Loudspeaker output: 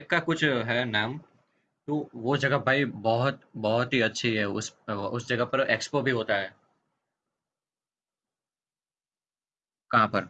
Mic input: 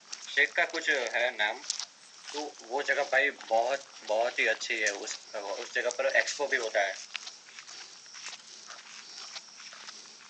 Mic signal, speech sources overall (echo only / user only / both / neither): echo only